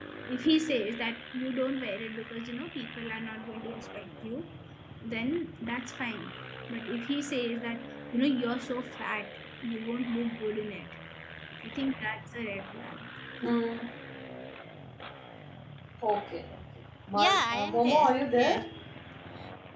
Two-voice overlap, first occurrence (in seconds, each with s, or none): 17.1 s